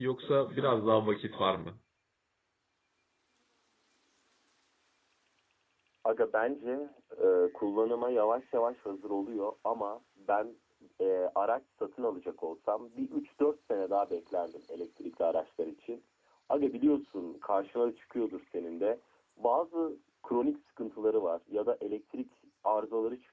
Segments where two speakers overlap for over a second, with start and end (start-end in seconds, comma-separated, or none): none